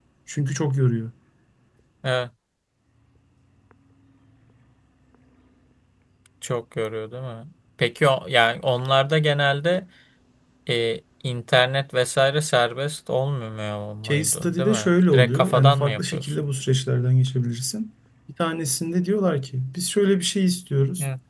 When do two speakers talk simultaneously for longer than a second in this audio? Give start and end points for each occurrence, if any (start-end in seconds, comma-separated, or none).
14.0-16.4